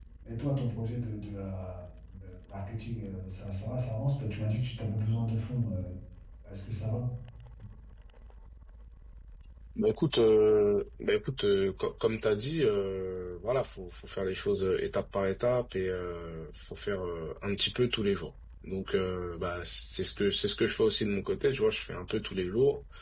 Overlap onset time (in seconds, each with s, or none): none